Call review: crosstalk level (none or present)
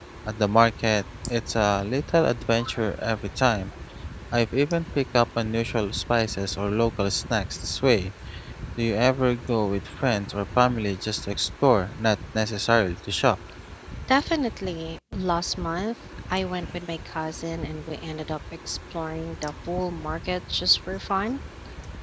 none